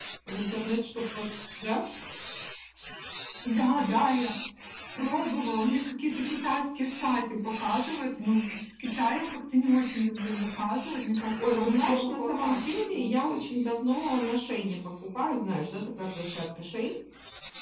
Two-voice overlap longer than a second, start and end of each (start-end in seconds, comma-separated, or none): 11.4-13.1